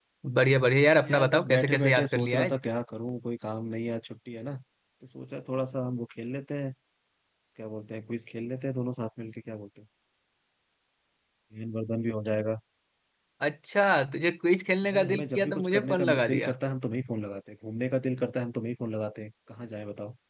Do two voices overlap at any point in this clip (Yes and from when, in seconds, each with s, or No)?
Yes, from 1.0 s